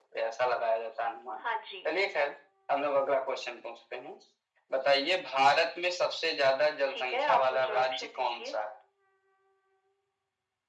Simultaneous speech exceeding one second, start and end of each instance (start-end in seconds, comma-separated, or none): 6.9-8.5